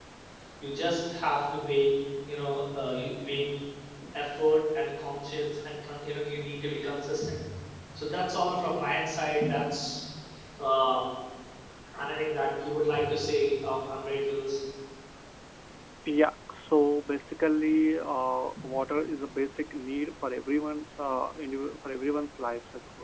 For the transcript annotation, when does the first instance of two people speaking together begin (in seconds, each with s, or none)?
none